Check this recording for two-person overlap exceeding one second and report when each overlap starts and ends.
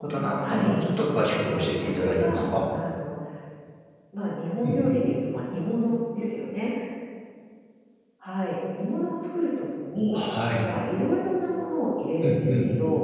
1.2-2.4

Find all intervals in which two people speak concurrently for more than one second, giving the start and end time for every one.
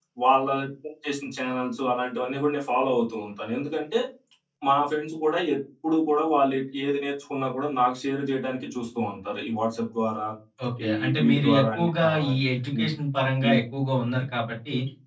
10.9-12.3

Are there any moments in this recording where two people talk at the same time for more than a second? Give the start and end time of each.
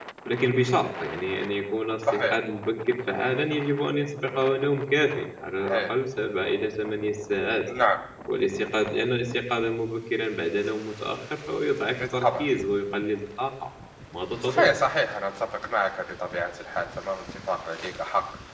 none

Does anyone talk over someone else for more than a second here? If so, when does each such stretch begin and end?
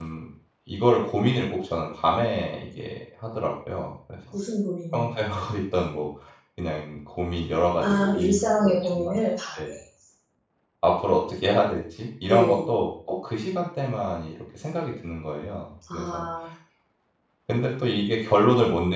7.8-9.1

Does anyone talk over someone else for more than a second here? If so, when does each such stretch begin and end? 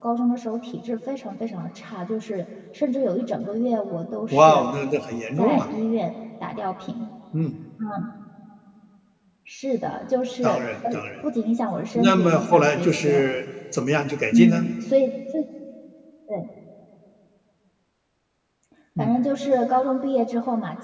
11.9-13.2

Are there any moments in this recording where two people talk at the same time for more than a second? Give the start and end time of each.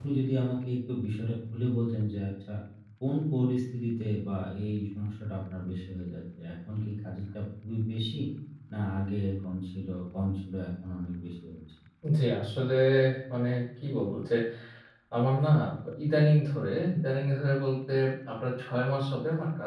none

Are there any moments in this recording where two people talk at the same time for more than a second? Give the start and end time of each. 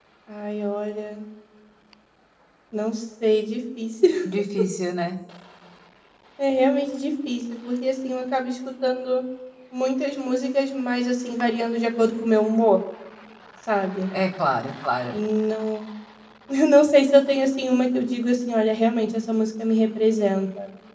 none

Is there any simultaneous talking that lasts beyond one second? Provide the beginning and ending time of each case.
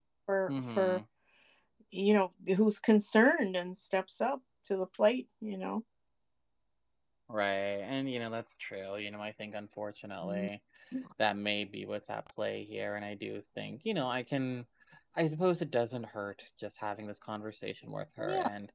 none

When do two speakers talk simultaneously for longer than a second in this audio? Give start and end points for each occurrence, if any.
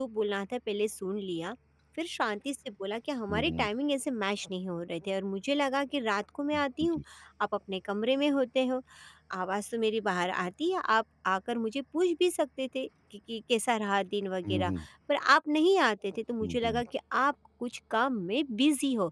none

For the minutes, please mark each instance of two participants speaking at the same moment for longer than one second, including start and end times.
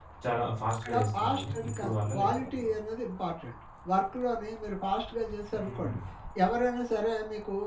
0.8-2.8

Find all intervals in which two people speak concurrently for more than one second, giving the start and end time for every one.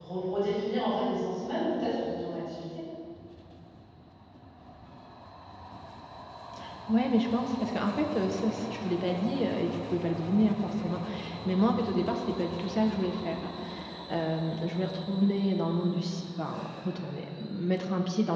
none

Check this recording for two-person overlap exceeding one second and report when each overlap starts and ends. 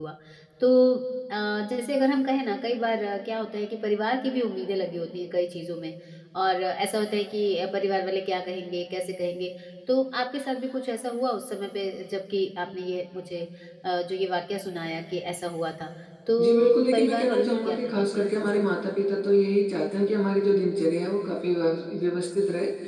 16.4-18.6

